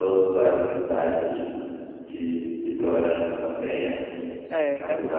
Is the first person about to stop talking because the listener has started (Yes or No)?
No